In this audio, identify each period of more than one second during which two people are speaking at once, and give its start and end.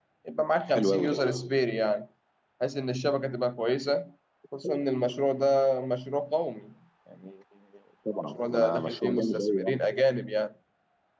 8.2-9.8

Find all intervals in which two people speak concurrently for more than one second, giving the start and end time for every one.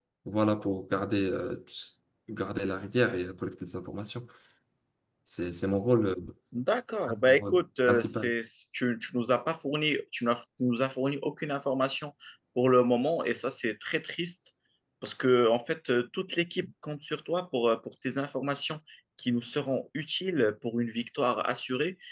7.1-8.3

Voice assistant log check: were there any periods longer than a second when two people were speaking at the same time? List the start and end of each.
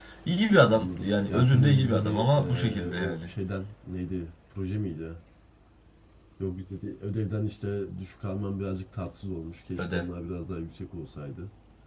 0.7-3.3

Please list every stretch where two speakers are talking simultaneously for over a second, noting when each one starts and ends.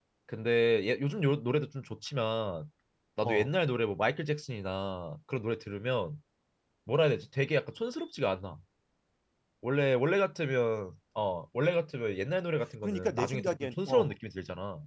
12.8-14.1

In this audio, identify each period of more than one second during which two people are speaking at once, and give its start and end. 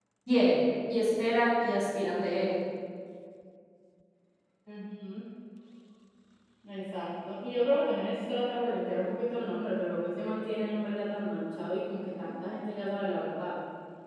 none

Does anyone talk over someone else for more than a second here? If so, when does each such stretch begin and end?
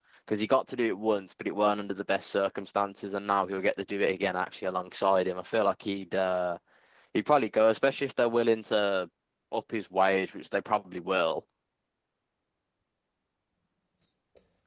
none

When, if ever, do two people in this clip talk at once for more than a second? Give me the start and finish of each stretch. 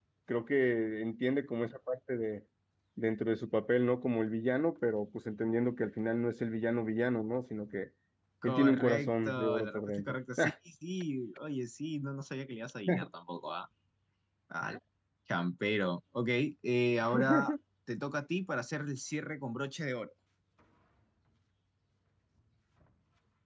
8.4-10.1

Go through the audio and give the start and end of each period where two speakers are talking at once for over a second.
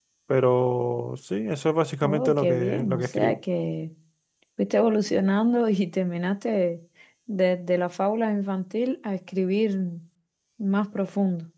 2.0-3.4

